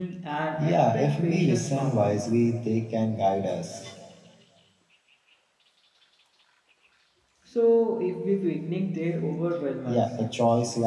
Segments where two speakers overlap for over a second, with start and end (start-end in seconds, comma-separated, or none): 0.6-2.2